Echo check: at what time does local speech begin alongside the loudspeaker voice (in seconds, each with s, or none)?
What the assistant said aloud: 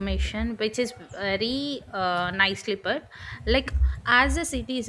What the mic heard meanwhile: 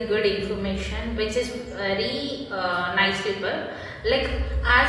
none